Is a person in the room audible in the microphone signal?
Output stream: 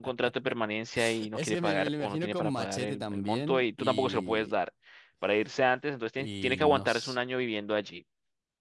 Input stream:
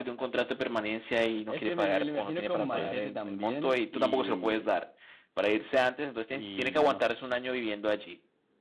Yes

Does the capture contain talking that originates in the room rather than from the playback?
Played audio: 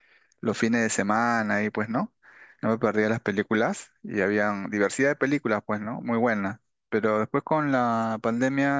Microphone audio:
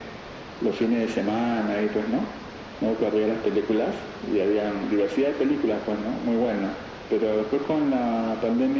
No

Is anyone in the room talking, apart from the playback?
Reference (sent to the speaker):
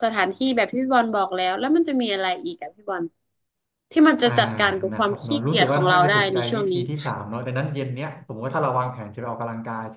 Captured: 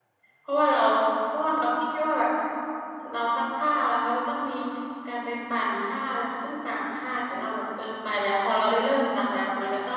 Yes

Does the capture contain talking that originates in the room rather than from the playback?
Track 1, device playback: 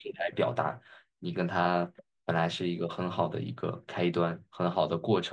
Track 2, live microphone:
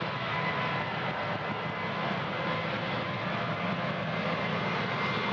No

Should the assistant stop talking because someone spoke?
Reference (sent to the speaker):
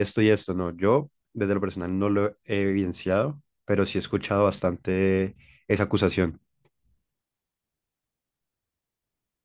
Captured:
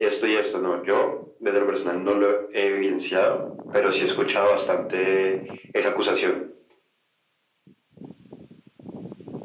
No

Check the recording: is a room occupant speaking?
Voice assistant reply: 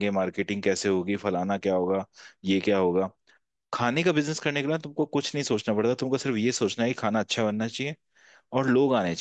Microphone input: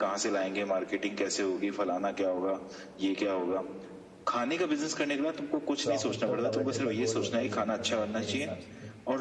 Yes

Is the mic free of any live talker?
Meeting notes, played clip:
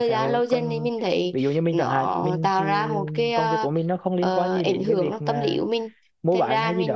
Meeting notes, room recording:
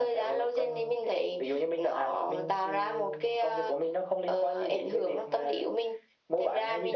Yes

